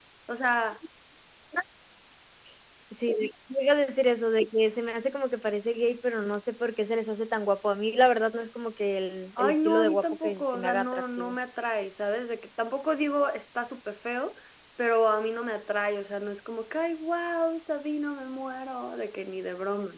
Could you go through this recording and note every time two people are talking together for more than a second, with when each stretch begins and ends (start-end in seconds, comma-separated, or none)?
9.4-11.4